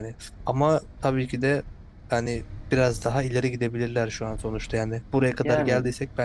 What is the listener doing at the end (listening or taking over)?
listening